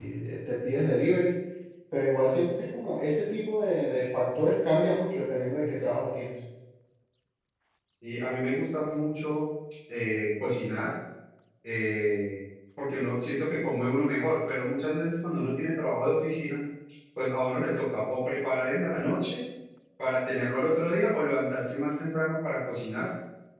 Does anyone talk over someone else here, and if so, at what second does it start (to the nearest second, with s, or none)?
none